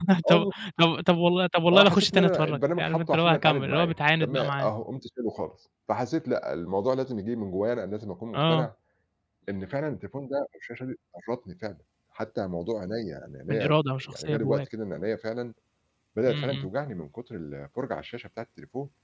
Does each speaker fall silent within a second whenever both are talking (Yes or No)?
No